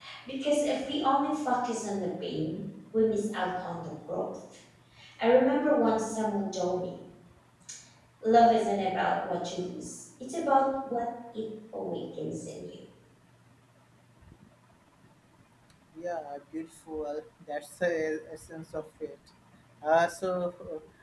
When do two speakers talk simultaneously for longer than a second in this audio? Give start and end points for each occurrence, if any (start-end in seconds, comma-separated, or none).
none